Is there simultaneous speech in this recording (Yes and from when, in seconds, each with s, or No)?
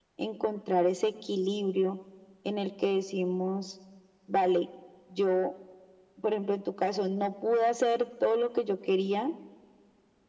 No